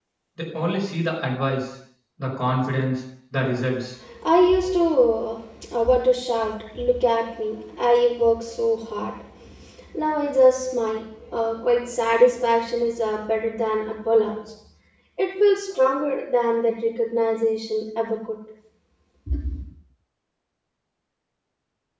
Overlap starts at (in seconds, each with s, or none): none